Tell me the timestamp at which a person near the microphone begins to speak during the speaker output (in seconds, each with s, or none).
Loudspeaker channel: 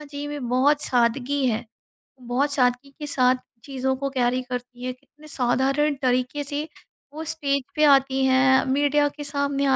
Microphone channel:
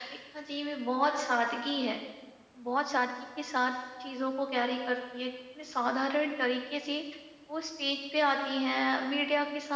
none